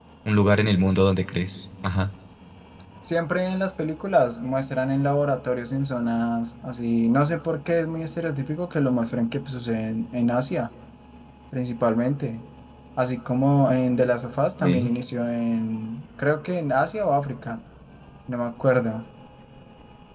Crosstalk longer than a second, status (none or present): none